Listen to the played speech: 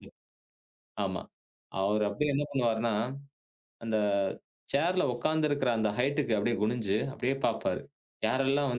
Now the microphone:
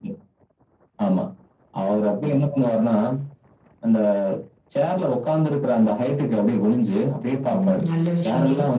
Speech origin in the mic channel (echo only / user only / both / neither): both